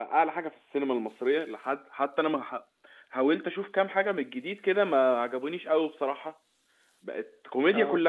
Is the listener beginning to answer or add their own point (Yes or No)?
No